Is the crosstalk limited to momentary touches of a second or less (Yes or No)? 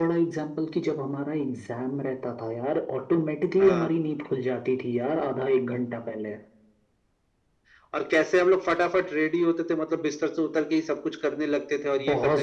Yes